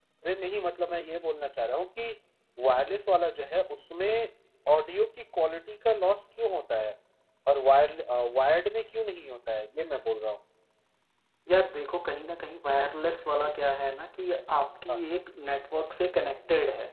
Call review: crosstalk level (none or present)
none